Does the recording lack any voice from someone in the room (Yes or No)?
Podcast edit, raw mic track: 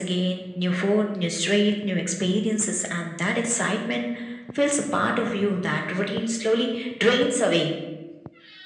Yes